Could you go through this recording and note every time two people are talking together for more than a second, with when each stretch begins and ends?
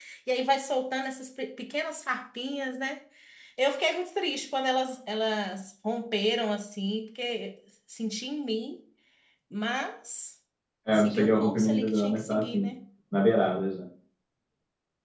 10.9-12.7

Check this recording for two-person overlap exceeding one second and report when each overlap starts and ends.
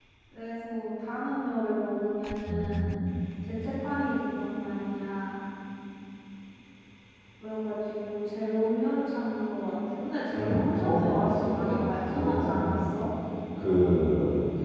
10.4-12.7

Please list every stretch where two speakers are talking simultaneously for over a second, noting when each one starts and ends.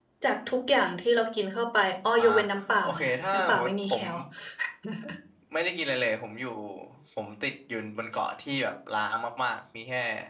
2.8-4.0

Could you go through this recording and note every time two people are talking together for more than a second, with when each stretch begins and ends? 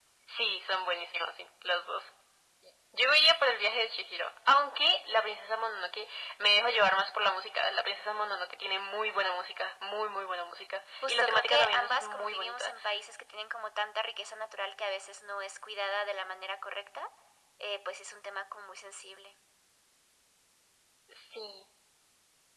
11.0-12.7

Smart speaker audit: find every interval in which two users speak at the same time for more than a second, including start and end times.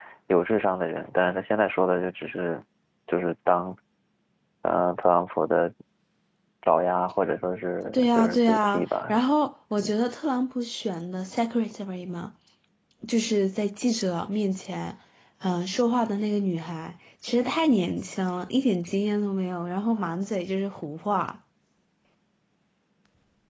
7.9-9.1

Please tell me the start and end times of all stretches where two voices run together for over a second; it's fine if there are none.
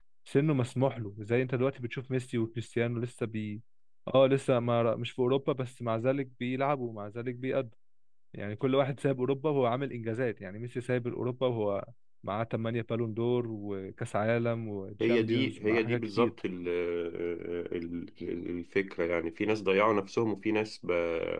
15.0-16.3

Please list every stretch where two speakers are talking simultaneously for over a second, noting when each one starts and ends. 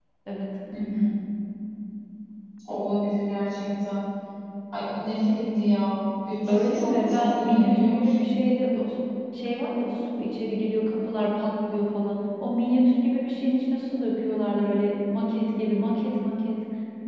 6.5-8.3

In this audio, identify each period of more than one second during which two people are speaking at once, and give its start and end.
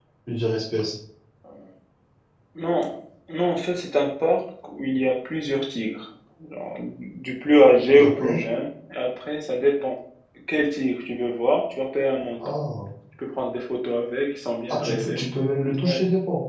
none

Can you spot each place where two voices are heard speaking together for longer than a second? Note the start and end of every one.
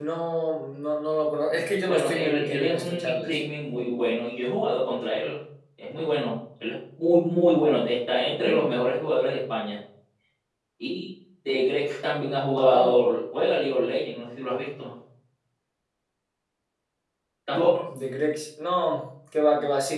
1.9-3.4

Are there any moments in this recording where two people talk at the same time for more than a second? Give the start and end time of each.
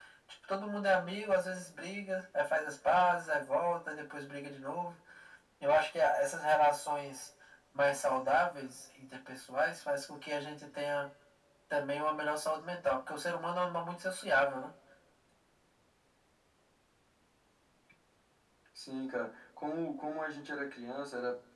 none

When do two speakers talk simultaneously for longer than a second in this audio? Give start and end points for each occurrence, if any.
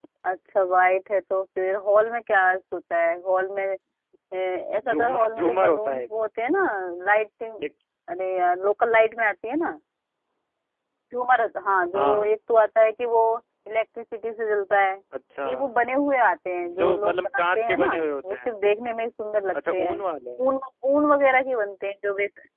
4.9-6.1, 16.8-18.6

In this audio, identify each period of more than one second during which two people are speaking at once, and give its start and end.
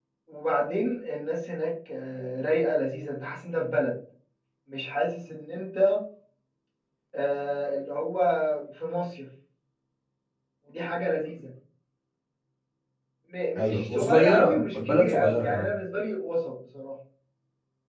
13.6-15.7

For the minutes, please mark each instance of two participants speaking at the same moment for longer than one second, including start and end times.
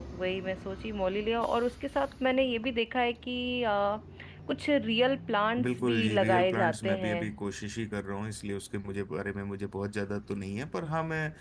5.6-7.2

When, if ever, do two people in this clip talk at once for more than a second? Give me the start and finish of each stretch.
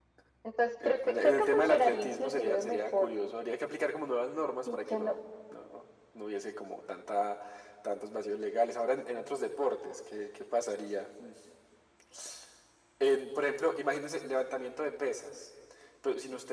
0.8-3.1

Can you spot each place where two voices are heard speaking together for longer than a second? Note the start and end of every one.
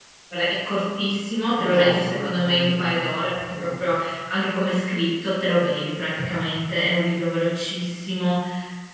1.6-3.0

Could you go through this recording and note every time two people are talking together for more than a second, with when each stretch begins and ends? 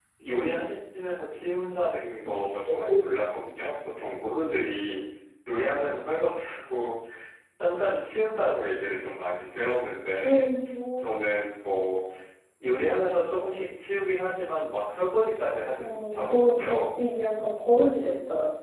15.8-17.0

